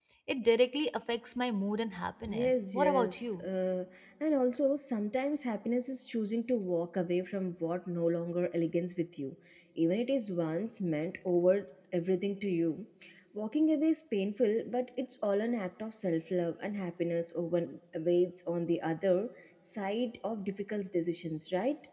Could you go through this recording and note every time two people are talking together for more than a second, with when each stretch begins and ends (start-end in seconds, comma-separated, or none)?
2.3-3.5